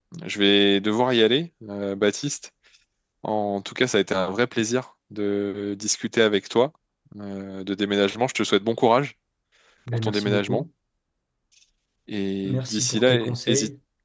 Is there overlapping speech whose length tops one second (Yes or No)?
Yes